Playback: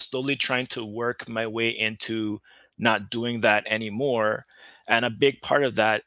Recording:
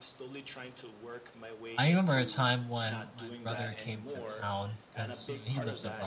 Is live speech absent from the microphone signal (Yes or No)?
No